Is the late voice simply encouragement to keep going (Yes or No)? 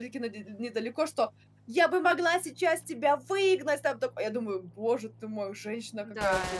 No